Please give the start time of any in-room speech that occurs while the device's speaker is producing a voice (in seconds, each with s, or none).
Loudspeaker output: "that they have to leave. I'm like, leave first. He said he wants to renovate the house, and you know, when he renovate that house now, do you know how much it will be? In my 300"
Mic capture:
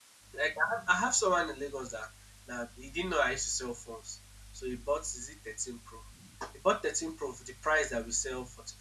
0.3 s